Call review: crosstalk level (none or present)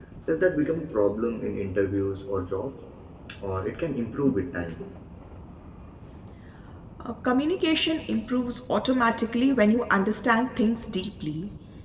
none